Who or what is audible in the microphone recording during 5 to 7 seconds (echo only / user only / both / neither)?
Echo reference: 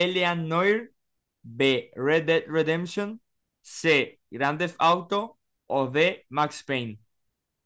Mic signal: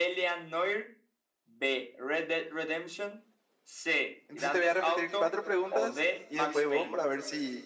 both